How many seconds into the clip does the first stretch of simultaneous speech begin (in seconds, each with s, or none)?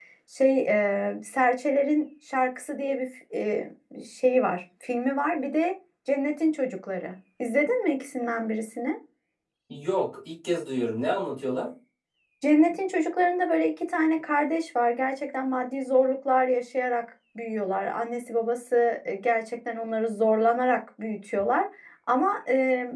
none